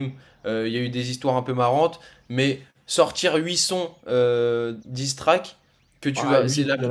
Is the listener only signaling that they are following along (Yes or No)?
No